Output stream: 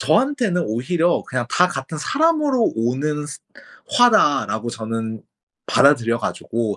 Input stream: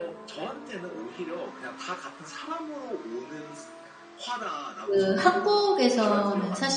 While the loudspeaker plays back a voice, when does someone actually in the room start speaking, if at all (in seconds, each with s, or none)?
4.8 s